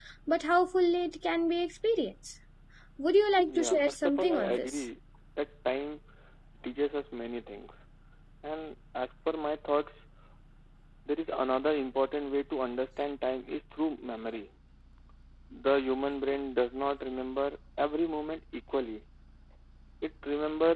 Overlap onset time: 3.5 s

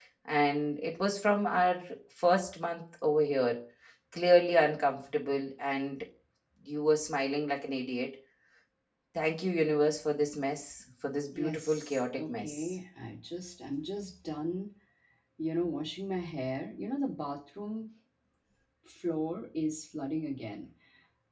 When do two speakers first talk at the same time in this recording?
11.3 s

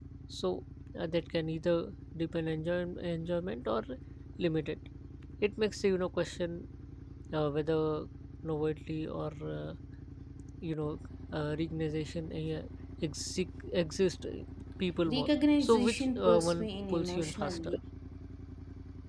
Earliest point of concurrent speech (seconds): 15.1 s

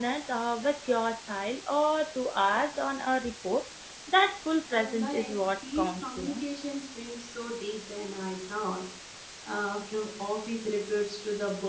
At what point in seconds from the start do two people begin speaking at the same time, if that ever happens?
4.8 s

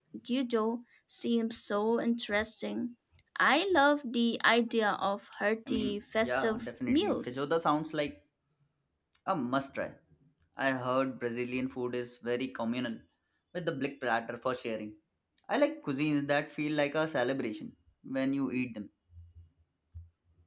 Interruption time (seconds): 5.7 s

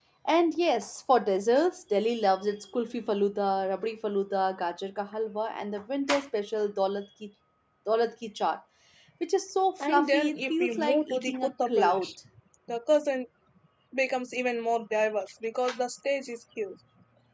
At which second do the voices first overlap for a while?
9.8 s

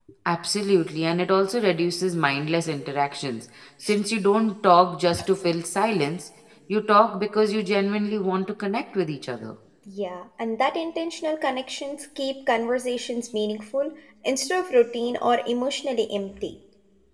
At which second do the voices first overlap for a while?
none

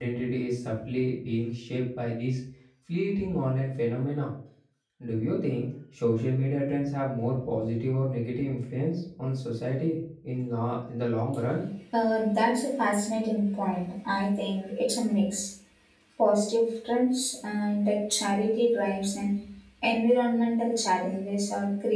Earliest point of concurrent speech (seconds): none

